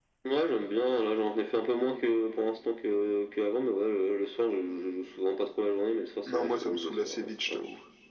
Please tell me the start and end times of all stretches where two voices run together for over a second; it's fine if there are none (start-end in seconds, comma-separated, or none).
6.3-7.6